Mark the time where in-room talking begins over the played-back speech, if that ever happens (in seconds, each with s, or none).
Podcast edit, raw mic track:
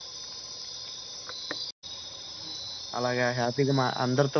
3.0 s